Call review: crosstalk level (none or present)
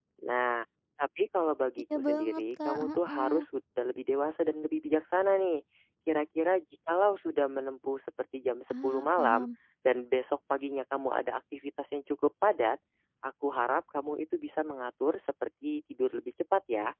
present